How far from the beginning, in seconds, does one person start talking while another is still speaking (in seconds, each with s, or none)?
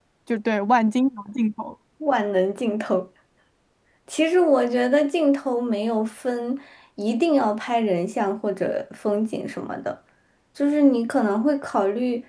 none